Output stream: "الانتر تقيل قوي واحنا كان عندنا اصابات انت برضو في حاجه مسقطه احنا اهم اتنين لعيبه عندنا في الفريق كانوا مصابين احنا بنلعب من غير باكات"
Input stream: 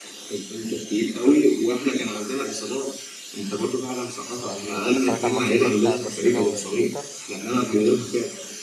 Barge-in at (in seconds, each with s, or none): 4.5 s